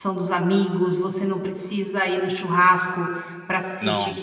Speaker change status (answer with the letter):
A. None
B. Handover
A